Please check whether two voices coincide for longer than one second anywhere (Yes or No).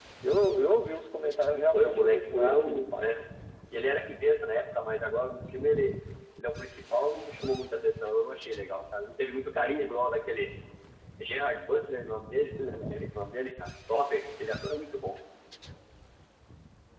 Yes